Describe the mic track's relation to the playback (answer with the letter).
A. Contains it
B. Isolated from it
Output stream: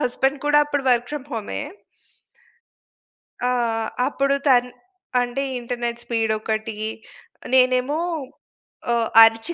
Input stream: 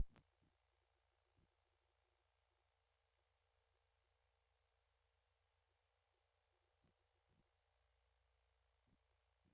B